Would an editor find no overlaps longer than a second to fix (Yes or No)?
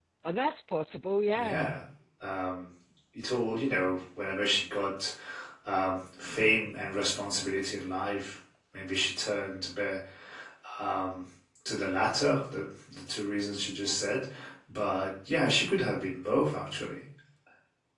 Yes